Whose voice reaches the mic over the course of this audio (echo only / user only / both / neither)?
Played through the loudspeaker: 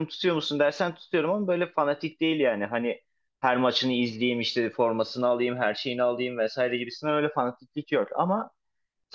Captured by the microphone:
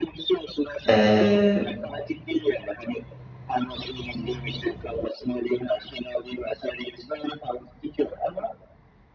both